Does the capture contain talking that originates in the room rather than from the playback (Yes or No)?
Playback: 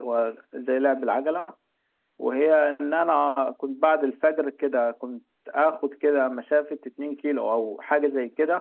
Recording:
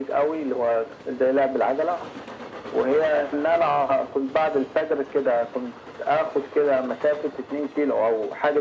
No